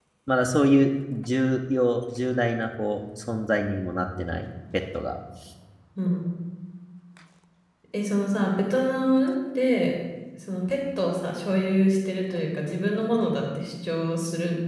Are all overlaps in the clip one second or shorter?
Yes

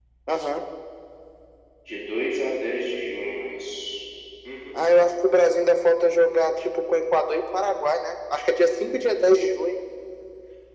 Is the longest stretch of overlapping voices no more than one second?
Yes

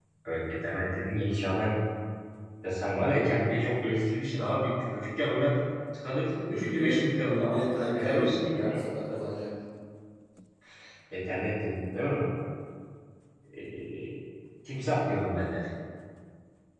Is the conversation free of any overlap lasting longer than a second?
No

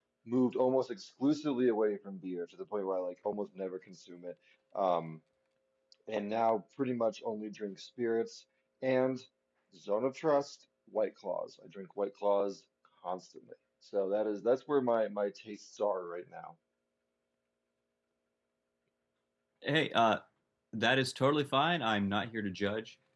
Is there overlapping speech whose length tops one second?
No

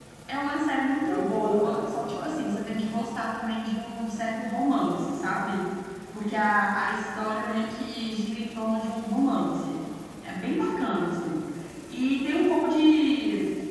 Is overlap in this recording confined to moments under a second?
No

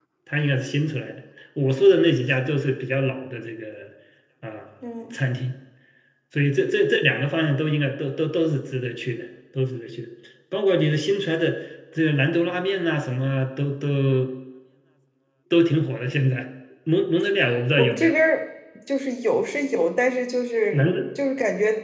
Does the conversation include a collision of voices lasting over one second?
No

